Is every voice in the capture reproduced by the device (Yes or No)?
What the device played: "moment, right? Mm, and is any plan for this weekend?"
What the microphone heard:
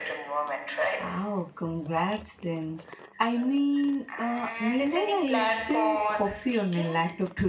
No